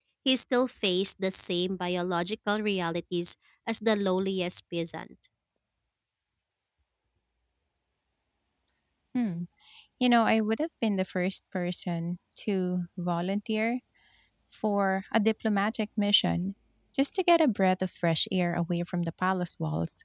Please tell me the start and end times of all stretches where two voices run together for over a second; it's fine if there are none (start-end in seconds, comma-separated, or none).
none